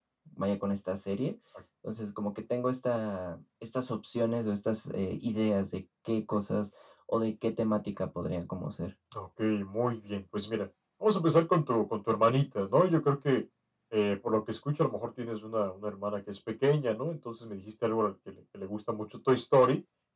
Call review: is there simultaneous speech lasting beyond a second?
No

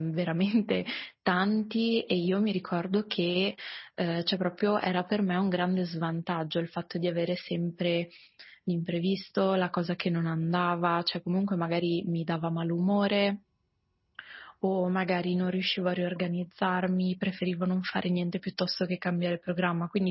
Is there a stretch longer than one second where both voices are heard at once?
No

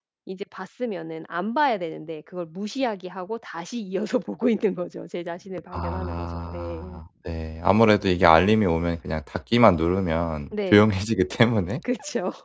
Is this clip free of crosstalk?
No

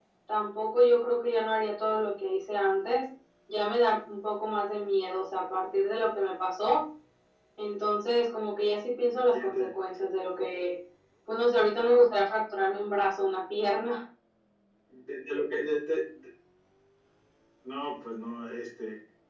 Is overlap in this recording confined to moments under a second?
Yes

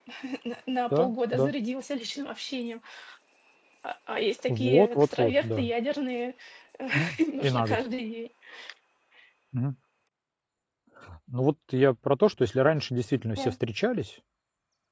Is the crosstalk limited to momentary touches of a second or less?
No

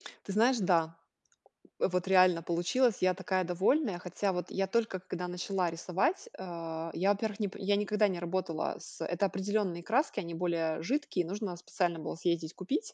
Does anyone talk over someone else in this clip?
No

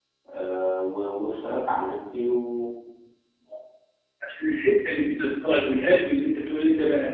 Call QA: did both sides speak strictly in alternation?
Yes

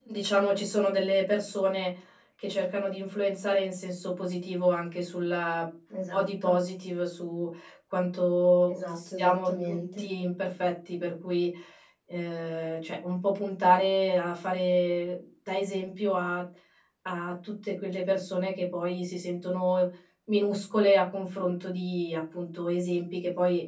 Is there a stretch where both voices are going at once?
Yes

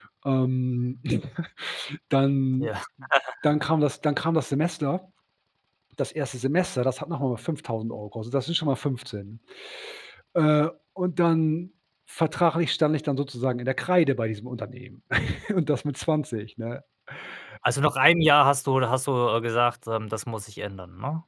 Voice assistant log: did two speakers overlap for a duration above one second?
No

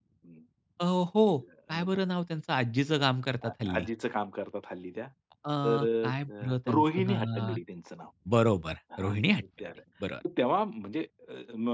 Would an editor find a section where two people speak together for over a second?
Yes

